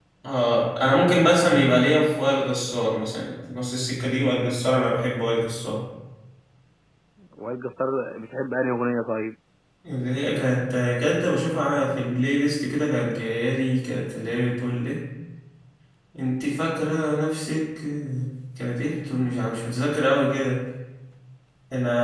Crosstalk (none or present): none